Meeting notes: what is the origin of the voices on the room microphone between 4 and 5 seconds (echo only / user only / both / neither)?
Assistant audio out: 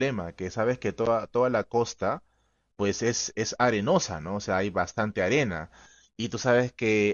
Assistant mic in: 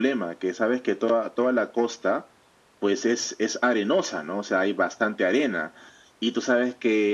echo only